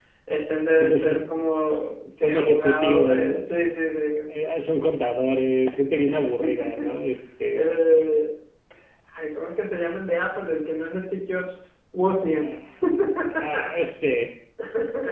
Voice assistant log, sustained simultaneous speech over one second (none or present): present